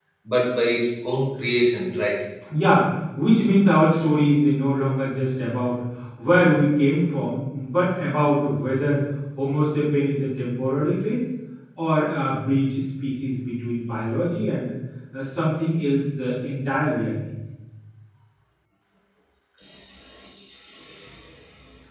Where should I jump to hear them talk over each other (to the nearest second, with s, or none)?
none